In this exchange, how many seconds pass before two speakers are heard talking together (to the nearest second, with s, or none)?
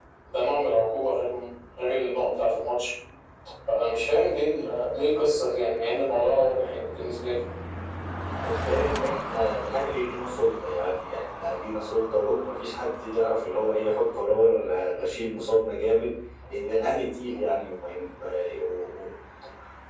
none